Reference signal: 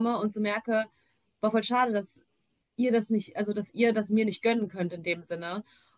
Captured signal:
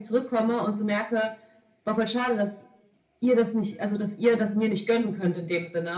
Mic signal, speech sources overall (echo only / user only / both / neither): echo only